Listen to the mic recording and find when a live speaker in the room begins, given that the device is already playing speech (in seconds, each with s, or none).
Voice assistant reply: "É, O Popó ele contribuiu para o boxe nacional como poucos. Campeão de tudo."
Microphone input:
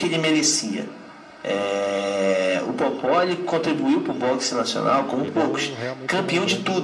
5.1 s